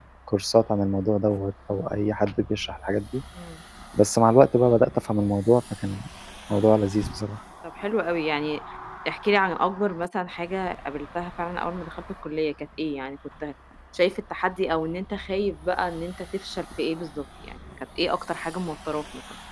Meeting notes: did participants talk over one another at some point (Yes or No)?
No